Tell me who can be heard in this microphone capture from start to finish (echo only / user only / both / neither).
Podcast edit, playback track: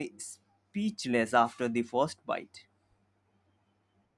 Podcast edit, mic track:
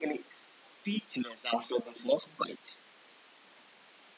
echo only